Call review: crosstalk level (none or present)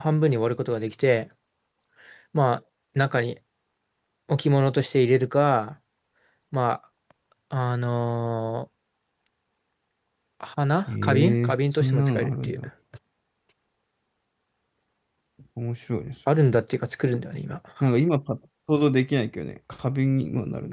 present